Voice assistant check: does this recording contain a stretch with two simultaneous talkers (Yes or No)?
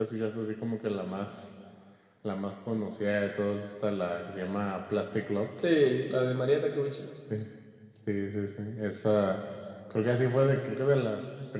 No